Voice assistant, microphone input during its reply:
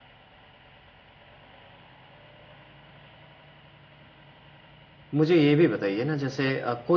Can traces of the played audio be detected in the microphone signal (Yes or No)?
No